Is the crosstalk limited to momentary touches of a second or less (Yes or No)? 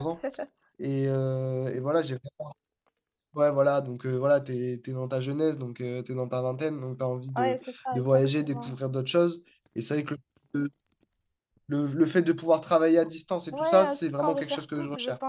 No